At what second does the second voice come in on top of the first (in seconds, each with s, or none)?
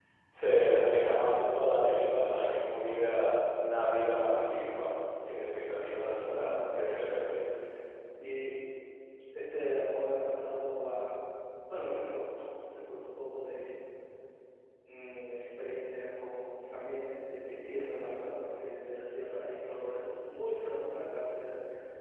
6.1 s